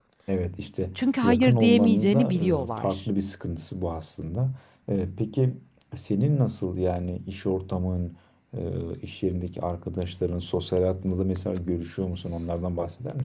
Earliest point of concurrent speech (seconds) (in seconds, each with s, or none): 1.0 s